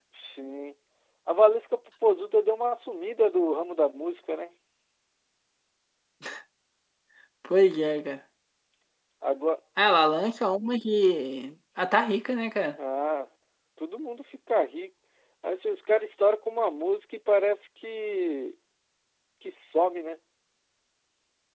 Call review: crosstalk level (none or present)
none